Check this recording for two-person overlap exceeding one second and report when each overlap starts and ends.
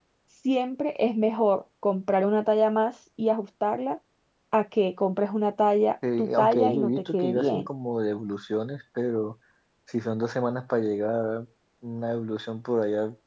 6.2-7.7

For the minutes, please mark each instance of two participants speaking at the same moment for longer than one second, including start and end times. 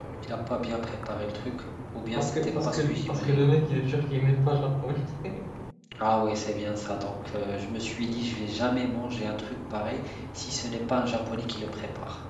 2.2-3.5

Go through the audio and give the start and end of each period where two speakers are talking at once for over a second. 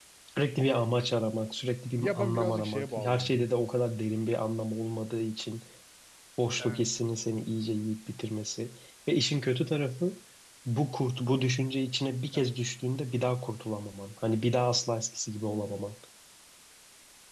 2.0-3.4

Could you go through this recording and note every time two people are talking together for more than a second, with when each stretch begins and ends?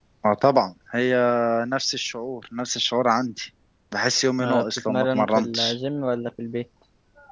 4.4-5.8

